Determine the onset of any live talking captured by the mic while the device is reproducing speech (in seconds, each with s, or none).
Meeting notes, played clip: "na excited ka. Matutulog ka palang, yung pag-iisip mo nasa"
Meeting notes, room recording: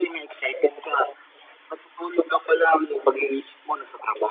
none